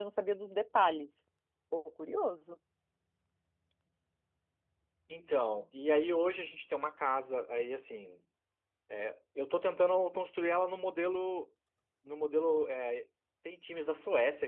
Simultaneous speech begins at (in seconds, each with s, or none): none